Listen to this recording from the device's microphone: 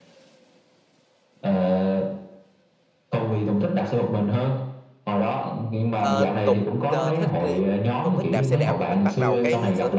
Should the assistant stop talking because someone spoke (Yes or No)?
Yes